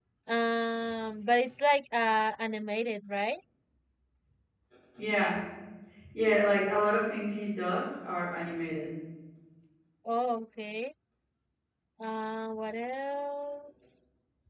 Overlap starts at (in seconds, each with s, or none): none